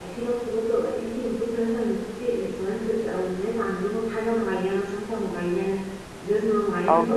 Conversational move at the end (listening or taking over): listening